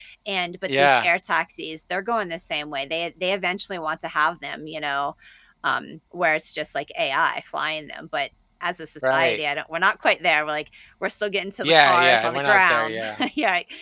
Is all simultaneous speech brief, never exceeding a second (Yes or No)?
No